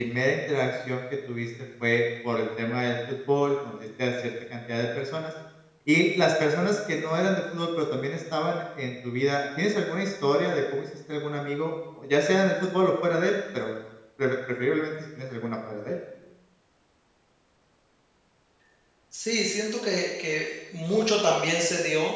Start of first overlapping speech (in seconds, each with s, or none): none